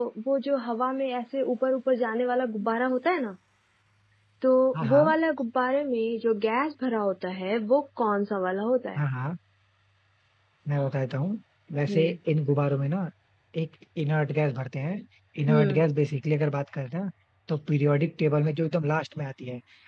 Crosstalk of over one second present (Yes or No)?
No